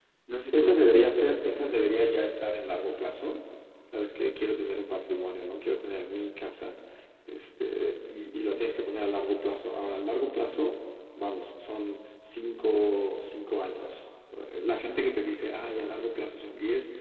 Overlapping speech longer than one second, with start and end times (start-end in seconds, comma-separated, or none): 0.5-1.8